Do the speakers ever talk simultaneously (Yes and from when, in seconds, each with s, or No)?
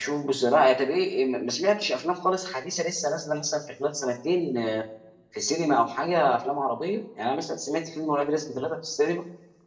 No